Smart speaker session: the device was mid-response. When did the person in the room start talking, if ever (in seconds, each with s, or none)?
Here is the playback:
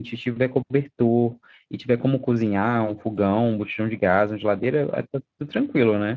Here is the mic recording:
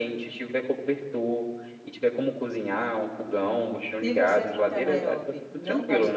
4.0 s